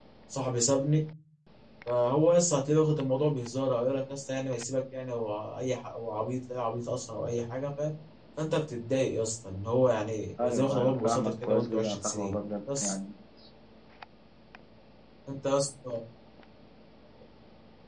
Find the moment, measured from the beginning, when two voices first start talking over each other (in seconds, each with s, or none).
10.4 s